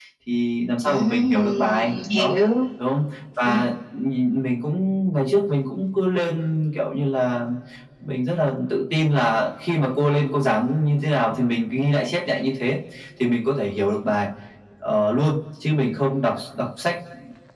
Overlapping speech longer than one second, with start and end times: 0.8-2.3

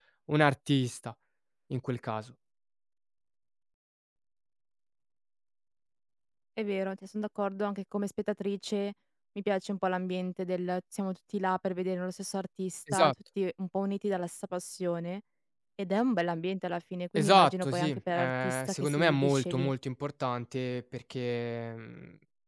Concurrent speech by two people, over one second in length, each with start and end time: 17.1-19.7

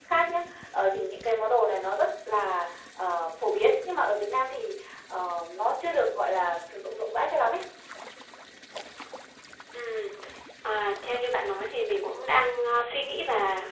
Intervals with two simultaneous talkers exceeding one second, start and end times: none

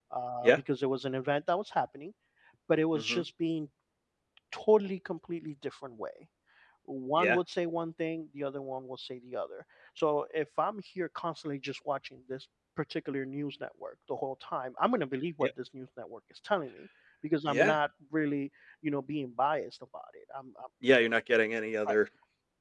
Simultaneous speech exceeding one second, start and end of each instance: none

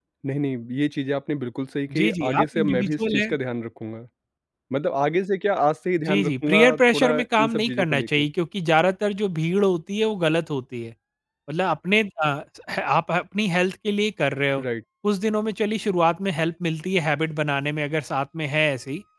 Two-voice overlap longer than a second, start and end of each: 2.0-3.3, 6.1-8.2

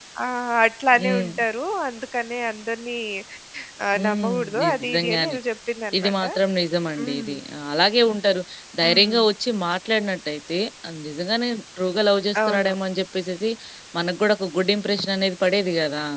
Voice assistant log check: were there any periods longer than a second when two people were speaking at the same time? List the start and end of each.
4.0-5.4

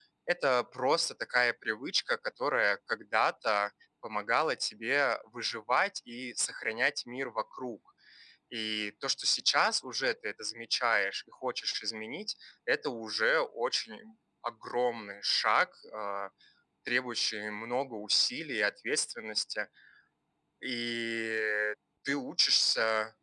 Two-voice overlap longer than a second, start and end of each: none

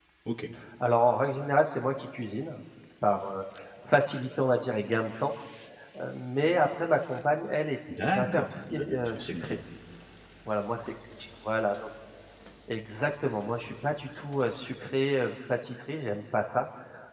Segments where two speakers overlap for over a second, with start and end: 8.1-9.6

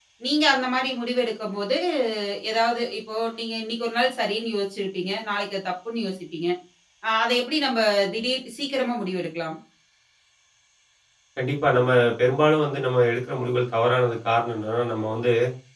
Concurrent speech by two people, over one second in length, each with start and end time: none

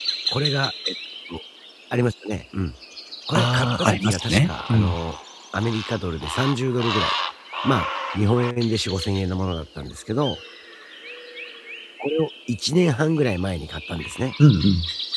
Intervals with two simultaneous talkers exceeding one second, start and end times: 3.3-5.0

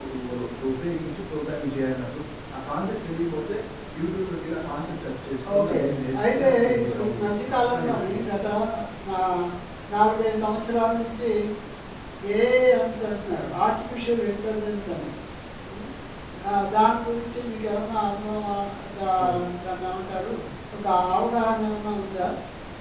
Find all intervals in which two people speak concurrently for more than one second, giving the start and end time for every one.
6.3-8.3

